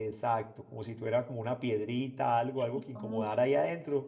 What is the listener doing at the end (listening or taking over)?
listening